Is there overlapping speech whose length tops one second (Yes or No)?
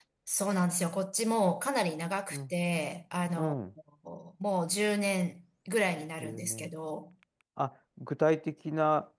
No